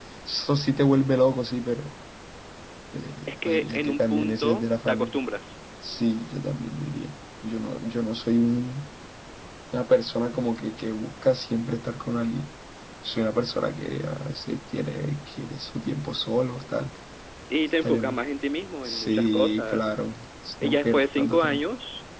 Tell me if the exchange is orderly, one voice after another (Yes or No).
No